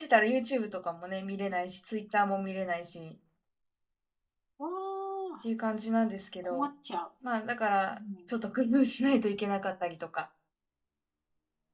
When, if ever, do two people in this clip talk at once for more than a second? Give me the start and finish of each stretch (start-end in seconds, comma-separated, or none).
none